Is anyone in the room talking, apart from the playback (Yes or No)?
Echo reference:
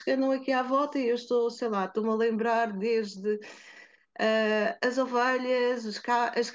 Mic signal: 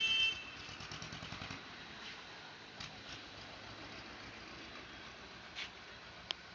No